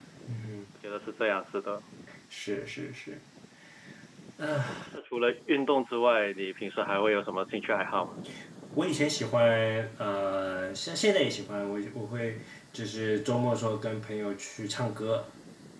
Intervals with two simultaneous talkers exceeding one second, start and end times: none

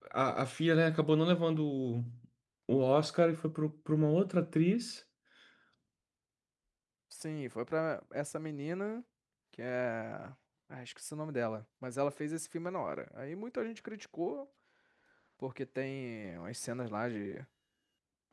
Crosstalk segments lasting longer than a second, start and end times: none

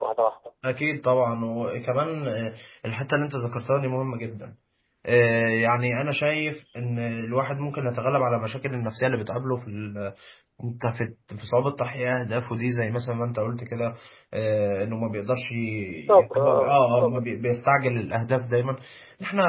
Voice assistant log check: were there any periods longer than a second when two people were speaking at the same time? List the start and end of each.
15.9-17.2

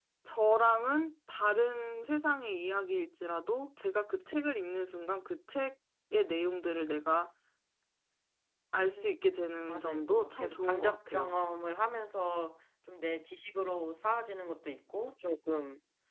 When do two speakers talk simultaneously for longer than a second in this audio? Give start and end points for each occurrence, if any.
9.7-11.4

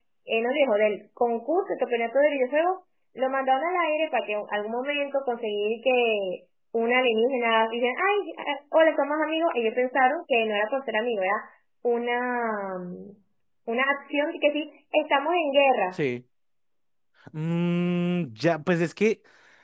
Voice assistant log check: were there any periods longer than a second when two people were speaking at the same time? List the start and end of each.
none

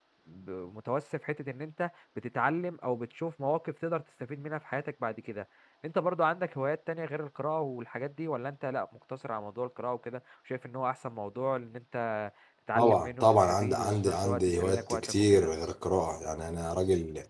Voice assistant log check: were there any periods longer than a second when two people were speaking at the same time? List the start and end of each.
12.8-15.5

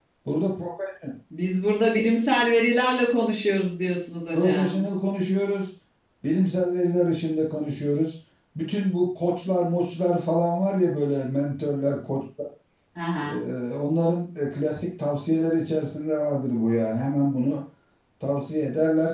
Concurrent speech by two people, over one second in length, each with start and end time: none

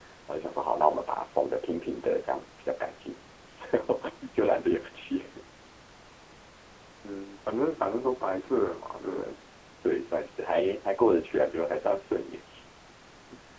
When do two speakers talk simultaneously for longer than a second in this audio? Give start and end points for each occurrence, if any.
none

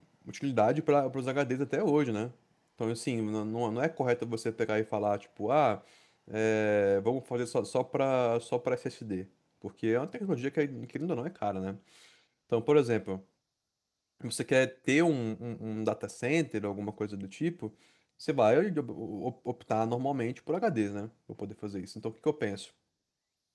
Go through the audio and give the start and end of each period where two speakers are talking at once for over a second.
none

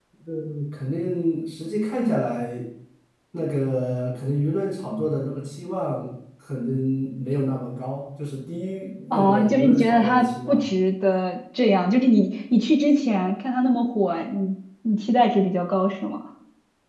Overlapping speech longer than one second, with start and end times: 9.1-10.6

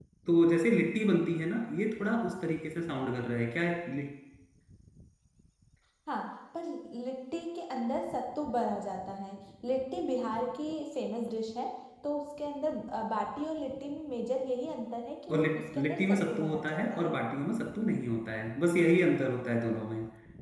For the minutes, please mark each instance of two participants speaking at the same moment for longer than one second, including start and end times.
15.3-17.2

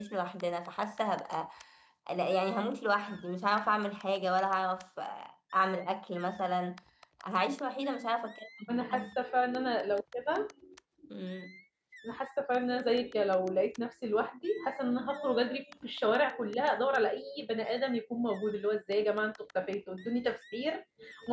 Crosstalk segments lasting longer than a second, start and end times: none

